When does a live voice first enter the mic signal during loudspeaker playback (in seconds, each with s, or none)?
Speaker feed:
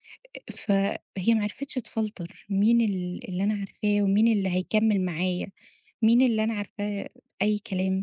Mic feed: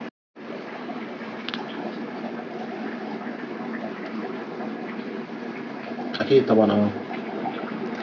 6.2 s